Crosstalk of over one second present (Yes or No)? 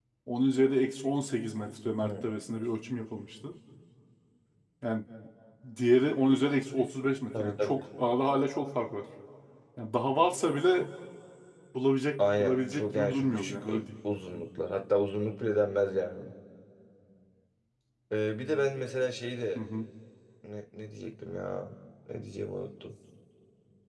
Yes